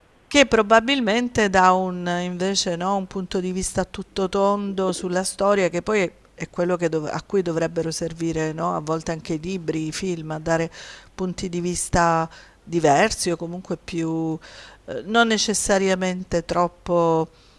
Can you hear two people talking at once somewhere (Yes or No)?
No